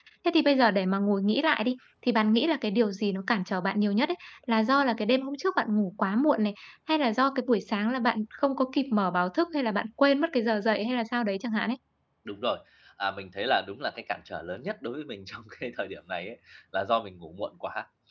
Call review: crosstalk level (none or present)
none